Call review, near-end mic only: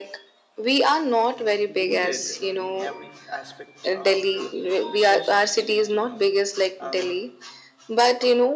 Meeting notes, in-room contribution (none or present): present